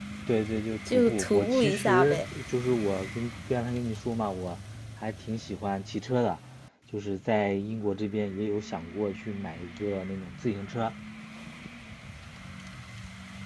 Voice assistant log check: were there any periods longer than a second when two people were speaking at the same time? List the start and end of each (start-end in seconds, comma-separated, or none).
0.9-2.2